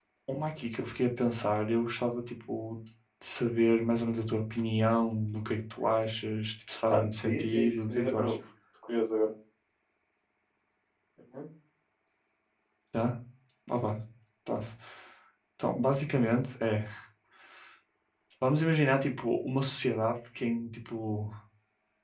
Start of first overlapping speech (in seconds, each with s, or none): 6.9 s